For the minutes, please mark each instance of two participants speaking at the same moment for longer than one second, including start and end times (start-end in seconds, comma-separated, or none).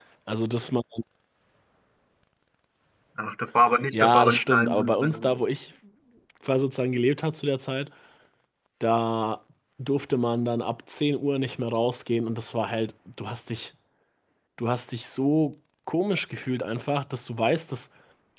3.9-5.4